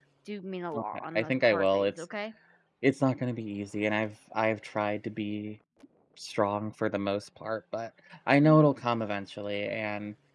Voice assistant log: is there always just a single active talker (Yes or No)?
No